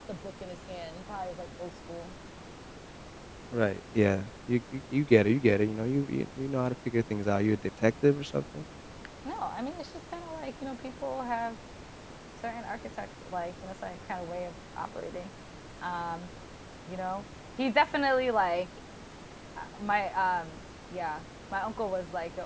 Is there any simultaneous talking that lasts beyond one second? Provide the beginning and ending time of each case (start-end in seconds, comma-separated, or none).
none